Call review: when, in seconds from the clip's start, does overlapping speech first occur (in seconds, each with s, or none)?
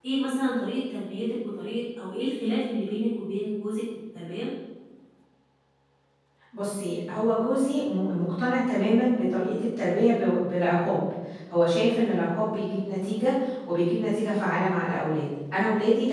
none